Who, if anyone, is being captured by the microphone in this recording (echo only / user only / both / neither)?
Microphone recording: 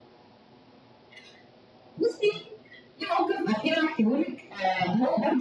echo only